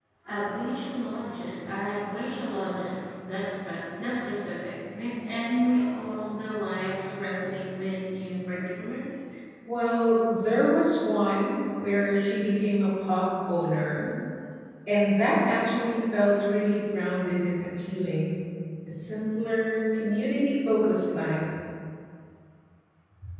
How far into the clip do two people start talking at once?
none

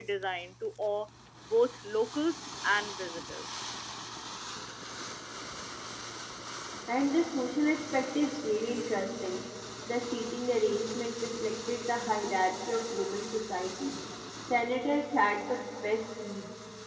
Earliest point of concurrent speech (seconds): none

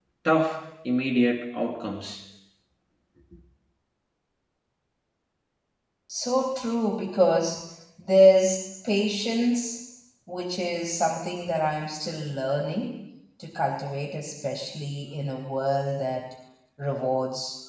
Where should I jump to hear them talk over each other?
none

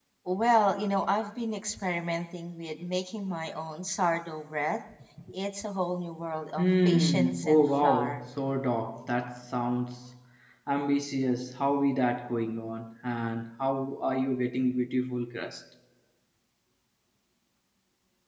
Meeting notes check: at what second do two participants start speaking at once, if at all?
6.6 s

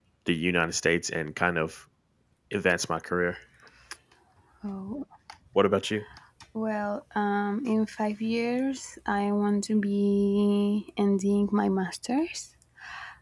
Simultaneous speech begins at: none

